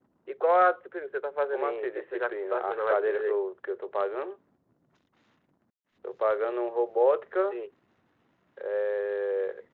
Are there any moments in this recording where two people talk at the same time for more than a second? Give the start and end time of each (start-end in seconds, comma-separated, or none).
1.5-3.4